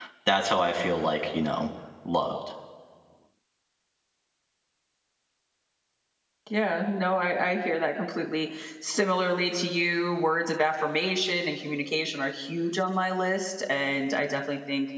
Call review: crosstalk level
none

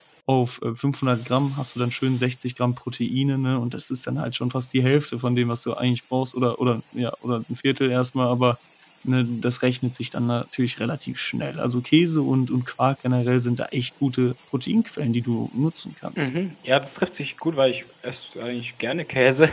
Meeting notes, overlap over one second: none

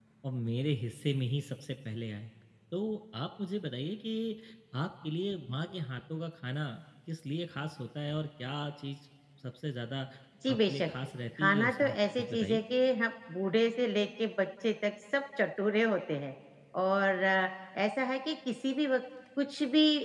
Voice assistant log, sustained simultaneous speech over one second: present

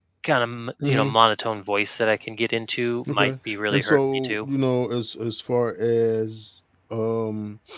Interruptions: present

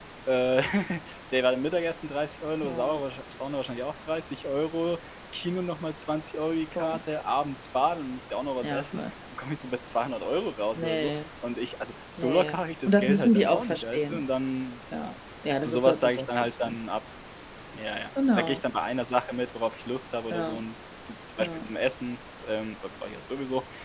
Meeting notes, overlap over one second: present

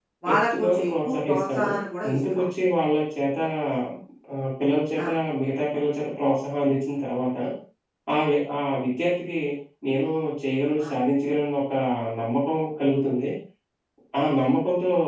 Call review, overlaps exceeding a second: present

